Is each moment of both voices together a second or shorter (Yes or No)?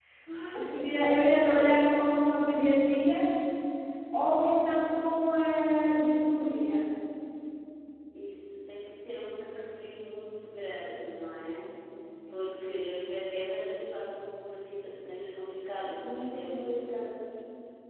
No